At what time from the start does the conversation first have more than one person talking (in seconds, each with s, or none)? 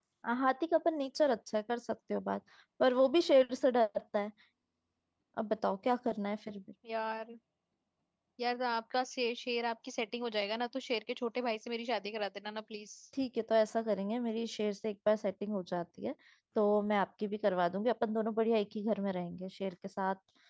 none